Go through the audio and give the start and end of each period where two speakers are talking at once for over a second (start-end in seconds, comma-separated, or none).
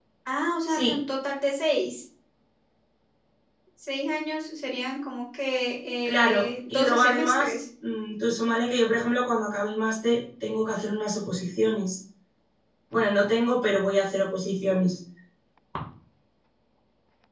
6.0-7.5